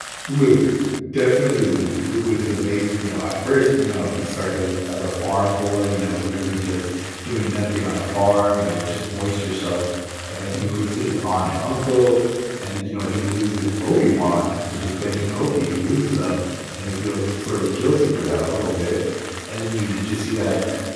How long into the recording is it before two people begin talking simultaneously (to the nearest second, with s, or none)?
none